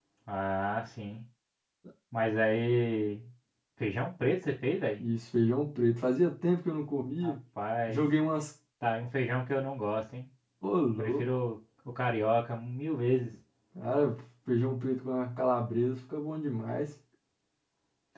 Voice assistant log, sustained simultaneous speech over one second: none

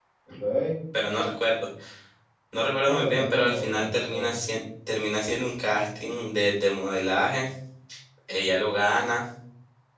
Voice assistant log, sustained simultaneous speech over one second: present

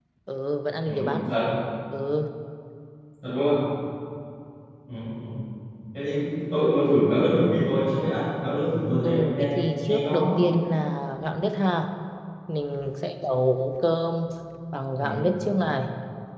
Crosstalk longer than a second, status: present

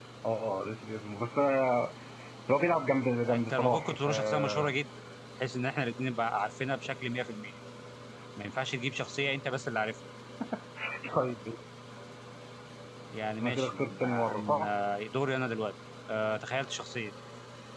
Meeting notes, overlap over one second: present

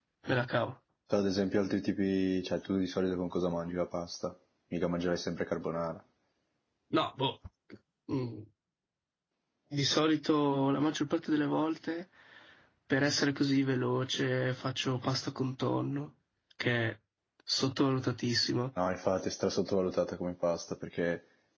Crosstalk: none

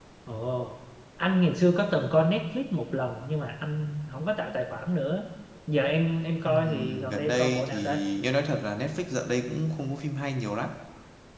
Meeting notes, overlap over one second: present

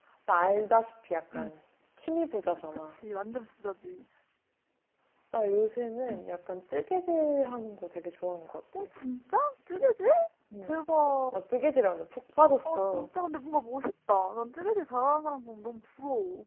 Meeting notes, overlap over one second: none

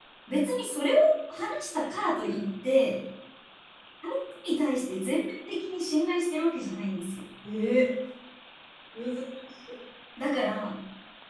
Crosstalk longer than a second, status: none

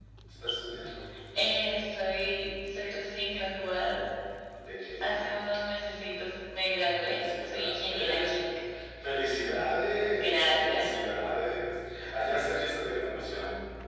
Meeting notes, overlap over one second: present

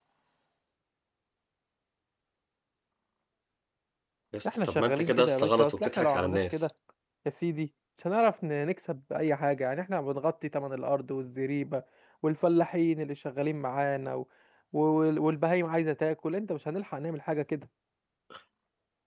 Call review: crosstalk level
present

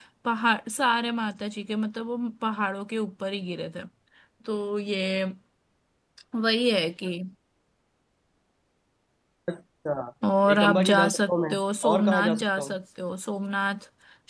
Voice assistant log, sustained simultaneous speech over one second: present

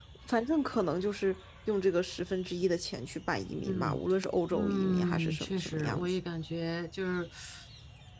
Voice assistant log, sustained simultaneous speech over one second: present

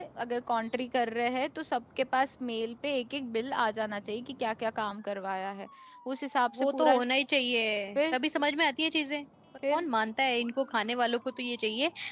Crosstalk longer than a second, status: none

